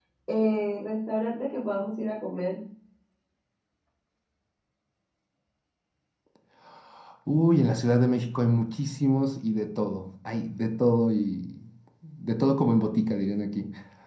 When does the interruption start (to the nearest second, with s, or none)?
none